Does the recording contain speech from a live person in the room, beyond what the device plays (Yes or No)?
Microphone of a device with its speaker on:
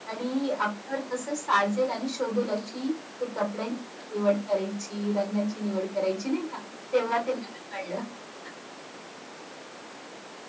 No